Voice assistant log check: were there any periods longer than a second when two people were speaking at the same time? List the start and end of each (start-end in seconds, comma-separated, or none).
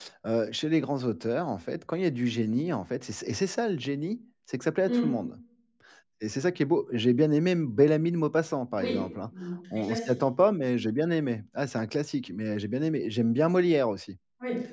none